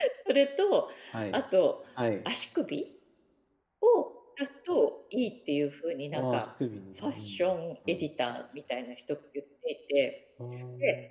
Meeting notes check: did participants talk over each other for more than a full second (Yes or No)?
No